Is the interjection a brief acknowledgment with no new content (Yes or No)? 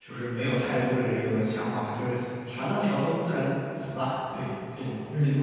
No